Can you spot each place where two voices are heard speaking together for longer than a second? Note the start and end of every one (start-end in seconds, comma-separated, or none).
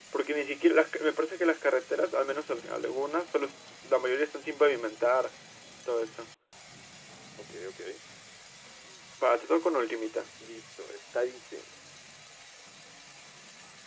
none